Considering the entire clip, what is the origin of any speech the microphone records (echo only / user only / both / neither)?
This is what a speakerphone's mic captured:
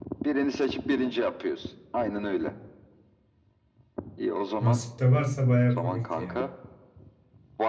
both